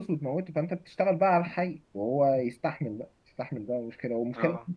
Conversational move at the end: listening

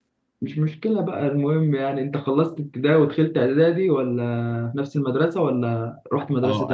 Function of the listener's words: taking over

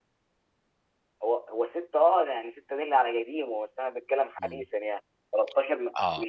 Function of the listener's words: taking over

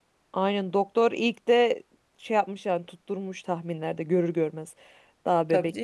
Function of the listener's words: taking over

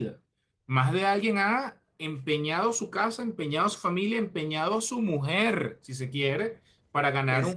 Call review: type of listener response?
listening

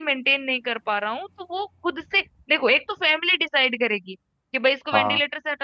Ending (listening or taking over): listening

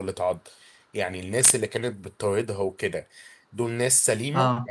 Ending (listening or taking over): listening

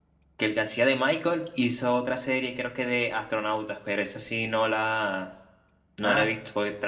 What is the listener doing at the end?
listening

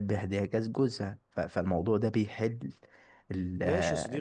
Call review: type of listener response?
taking over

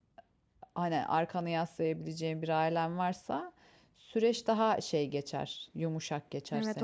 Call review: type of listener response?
taking over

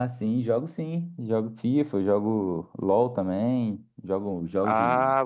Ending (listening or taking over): taking over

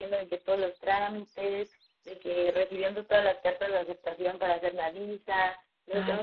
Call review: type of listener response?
listening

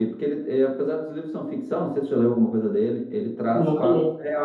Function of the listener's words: listening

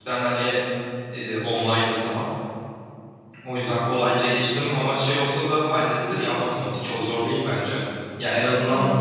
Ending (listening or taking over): listening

